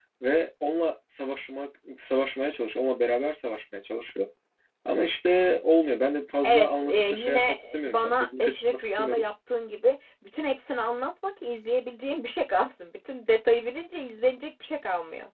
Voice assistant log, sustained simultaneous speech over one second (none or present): present